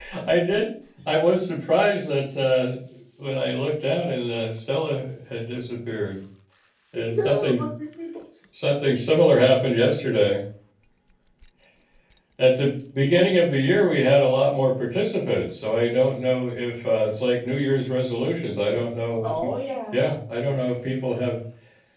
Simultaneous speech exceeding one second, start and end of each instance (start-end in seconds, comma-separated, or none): none